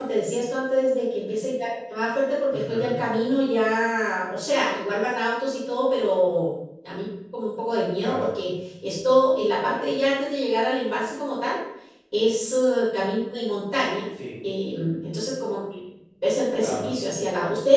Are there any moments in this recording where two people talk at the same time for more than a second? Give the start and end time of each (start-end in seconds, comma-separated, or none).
none